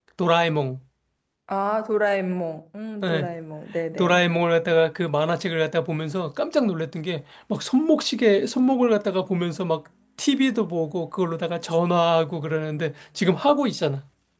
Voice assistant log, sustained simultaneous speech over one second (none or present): none